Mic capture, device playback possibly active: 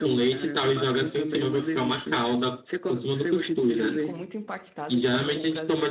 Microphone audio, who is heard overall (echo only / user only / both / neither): both